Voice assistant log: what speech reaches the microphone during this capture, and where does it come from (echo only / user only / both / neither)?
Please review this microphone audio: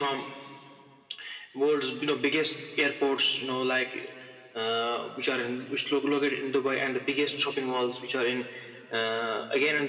echo only